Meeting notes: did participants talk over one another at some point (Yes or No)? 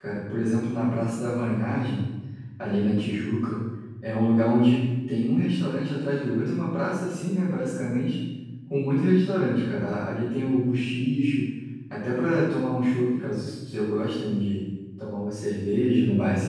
No